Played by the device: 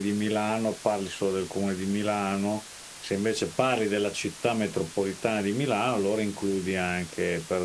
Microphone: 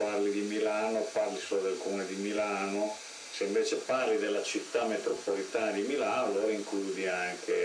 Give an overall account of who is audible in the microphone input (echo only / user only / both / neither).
echo only